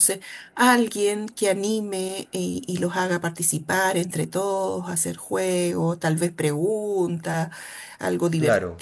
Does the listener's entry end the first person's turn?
No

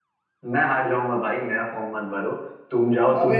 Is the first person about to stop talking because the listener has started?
Yes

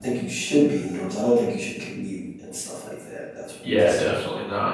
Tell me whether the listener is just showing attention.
No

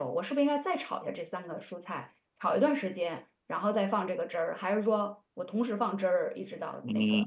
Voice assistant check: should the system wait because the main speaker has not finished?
No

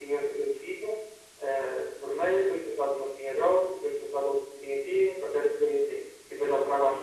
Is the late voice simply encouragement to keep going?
Yes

